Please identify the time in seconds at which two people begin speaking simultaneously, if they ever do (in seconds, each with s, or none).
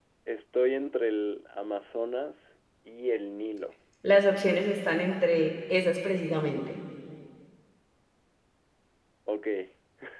none